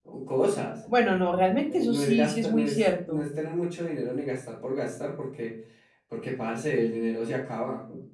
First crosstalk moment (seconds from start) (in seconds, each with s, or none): 1.7 s